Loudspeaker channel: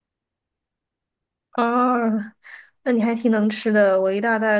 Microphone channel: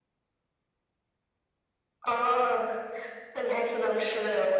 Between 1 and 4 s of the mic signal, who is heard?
echo only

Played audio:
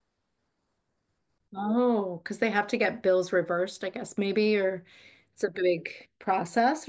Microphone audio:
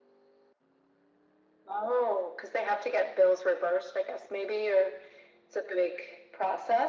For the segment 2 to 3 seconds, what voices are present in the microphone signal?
echo only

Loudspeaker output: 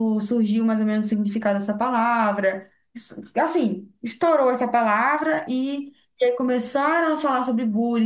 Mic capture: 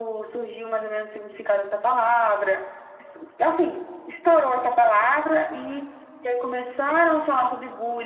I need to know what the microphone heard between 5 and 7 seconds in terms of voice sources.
echo only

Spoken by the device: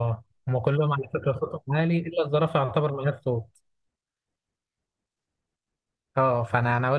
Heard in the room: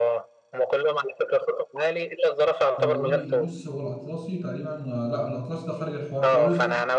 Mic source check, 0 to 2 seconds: echo only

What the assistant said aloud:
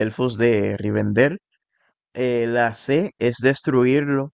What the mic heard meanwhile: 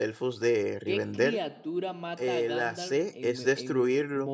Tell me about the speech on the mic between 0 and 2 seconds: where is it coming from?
both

